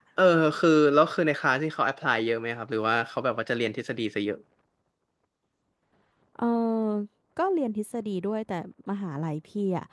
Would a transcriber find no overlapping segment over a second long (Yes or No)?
Yes